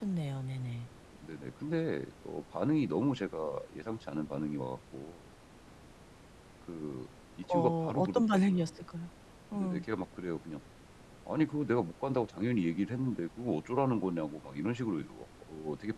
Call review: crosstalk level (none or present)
present